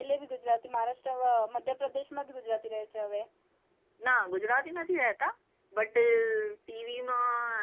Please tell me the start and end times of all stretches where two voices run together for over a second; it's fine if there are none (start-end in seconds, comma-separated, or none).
none